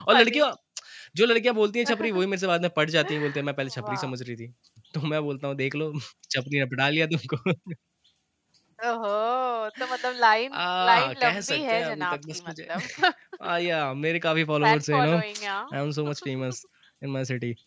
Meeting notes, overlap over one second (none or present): present